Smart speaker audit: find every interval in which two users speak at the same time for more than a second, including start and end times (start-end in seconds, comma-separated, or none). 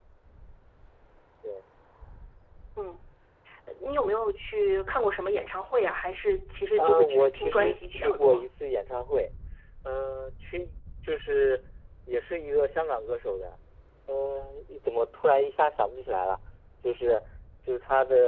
6.8-8.4